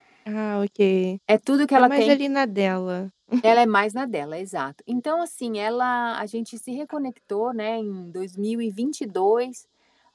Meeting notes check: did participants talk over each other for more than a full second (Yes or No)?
No